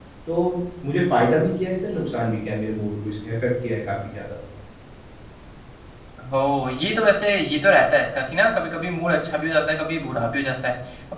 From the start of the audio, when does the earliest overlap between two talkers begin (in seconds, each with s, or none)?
none